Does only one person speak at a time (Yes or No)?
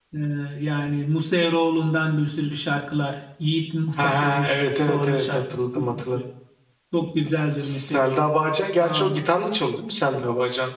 No